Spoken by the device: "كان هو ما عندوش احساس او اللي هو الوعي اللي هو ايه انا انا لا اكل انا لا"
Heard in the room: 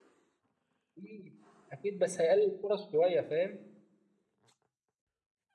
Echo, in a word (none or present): none